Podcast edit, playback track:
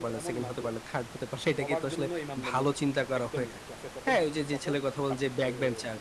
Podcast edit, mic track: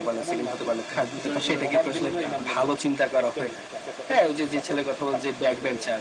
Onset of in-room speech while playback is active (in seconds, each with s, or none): 0.9 s